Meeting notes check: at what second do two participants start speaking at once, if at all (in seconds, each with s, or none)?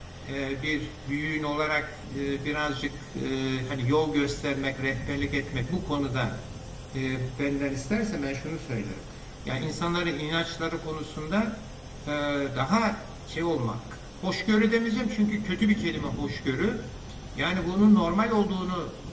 none